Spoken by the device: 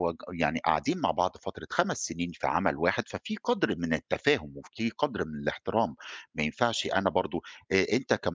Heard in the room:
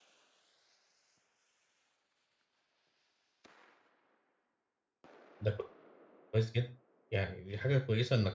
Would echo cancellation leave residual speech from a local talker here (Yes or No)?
Yes